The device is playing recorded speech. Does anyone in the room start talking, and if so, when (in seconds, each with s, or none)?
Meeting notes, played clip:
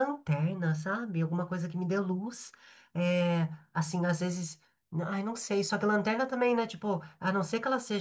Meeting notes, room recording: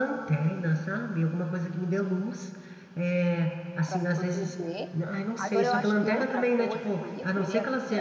3.8 s